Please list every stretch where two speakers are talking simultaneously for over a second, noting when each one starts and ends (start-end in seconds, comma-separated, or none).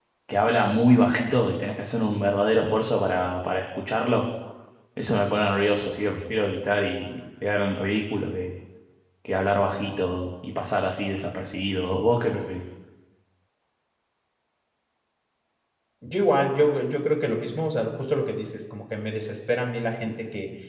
none